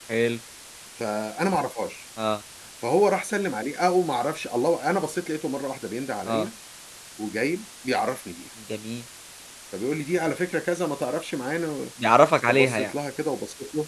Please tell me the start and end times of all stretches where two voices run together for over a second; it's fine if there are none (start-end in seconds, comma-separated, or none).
none